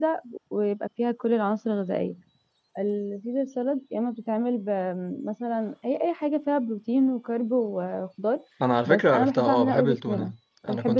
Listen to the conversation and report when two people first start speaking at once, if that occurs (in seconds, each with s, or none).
8.9 s